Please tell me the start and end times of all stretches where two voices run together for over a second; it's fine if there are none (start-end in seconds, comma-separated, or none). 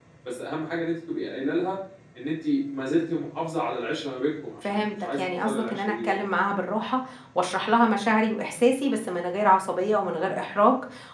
4.6-6.2